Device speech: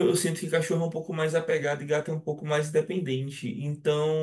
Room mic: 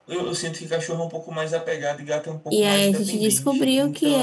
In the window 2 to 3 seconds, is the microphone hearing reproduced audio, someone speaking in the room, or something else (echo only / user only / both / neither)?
both